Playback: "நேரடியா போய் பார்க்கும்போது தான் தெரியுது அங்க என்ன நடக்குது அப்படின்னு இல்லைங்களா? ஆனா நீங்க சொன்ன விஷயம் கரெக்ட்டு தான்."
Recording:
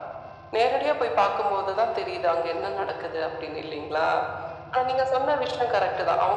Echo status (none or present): present